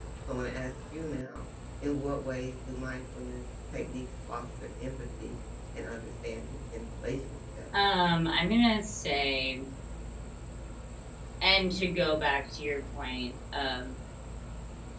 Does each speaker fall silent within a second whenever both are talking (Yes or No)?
Yes